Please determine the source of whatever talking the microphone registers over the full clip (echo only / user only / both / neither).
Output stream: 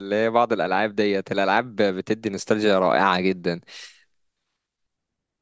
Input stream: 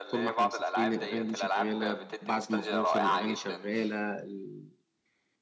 both